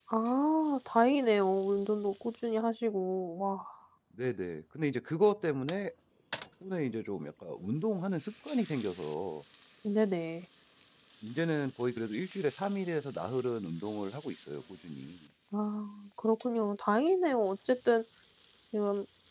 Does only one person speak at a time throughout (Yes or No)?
Yes